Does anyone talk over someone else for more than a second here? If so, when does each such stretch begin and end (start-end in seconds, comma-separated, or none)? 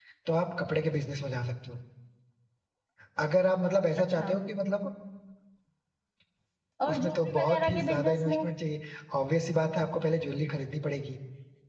6.9-8.4